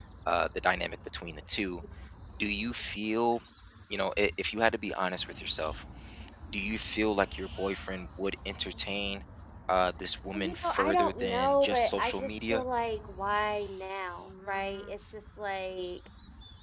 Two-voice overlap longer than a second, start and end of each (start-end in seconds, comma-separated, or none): 10.3-12.6